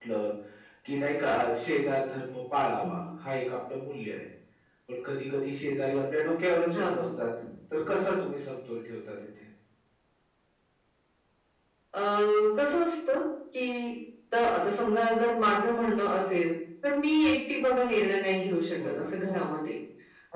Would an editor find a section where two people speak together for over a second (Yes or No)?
No